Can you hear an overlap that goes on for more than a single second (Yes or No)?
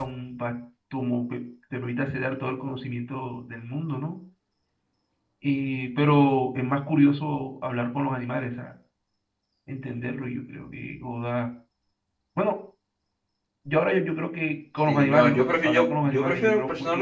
Yes